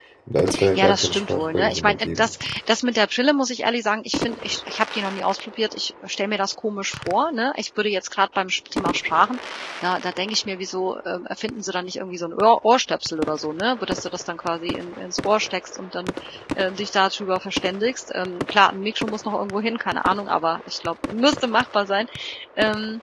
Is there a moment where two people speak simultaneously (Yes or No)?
Yes